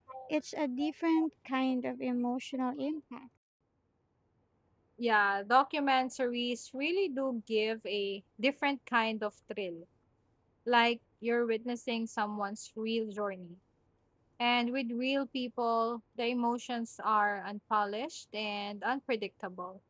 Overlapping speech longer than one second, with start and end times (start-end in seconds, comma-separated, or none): none